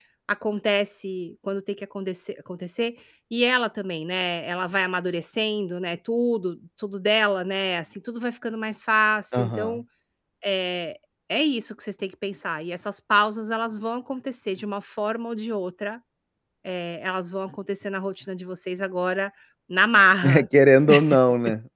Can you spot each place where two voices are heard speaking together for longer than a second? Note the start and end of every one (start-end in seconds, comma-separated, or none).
none